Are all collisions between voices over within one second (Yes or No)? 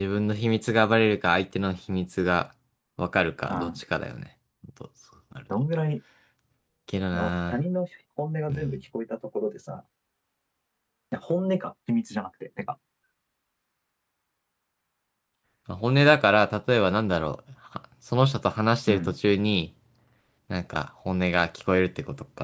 Yes